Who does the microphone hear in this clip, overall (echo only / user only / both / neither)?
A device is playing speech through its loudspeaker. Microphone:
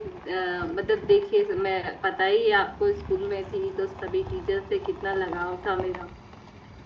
echo only